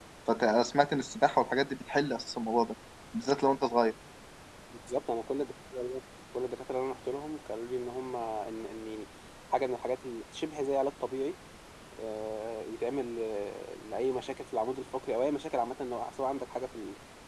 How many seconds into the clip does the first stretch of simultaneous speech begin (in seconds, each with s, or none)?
none